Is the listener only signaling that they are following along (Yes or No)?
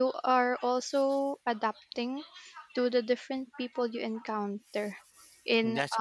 Yes